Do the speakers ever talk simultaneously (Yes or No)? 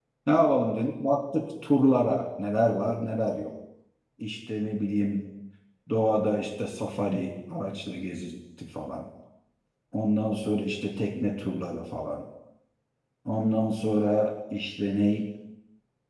No